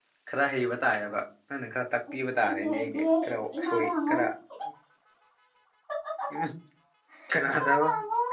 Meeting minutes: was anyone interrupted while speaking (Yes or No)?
Yes